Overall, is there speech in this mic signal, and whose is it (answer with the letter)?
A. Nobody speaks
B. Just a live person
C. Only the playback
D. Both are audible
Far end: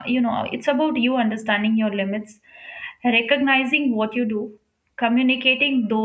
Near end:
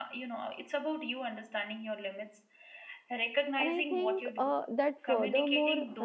D